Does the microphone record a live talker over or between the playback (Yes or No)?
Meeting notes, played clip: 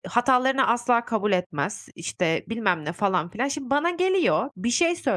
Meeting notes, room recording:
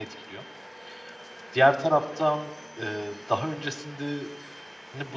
Yes